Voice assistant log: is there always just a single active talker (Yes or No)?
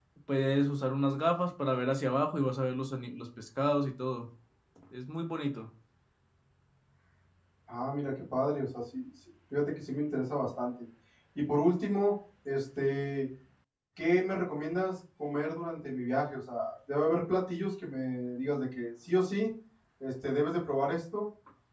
Yes